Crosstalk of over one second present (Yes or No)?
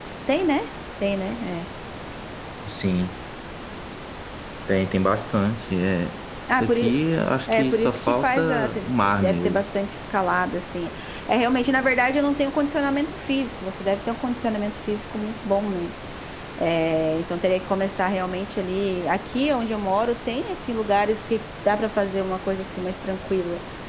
Yes